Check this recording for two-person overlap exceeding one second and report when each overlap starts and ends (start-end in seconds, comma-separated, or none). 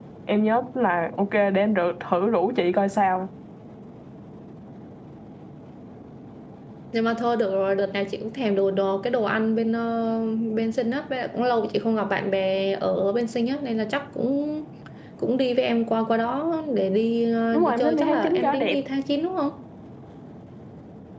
17.5-18.8